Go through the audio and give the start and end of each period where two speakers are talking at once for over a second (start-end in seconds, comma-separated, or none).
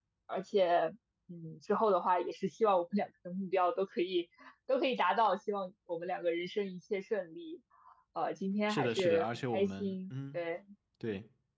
8.7-10.4